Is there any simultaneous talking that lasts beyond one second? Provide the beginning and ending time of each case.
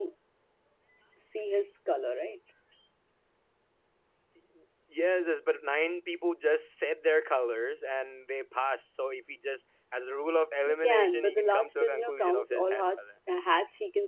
10.6-13.1

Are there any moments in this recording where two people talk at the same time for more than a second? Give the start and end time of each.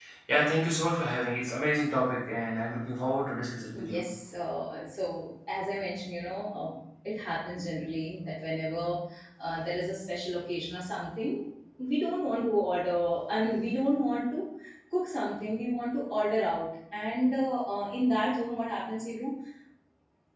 none

